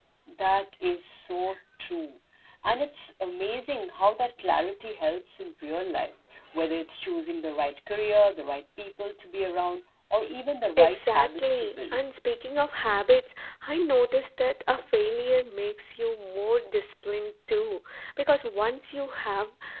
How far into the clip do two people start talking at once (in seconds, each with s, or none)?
10.8 s